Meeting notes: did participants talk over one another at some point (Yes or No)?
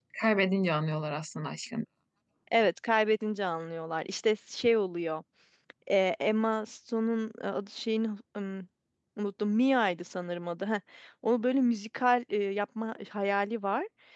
No